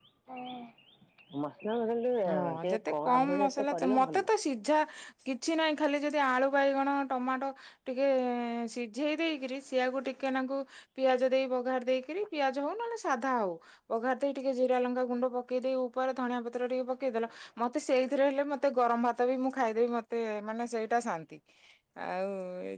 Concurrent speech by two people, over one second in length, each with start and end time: 2.3-4.2

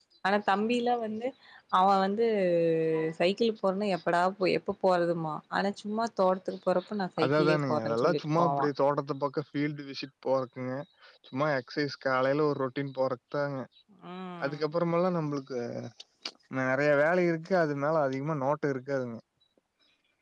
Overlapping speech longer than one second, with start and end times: 7.2-8.7

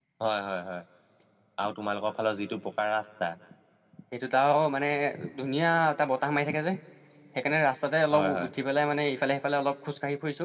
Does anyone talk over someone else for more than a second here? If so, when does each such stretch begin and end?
none

